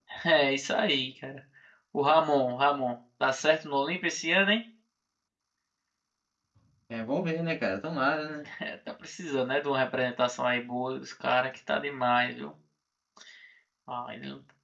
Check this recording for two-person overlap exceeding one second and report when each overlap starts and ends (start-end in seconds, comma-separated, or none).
none